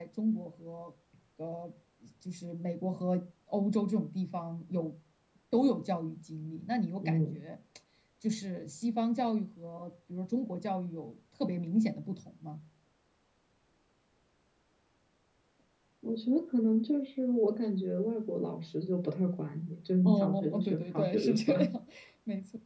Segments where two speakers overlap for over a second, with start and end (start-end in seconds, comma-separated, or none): 20.0-21.6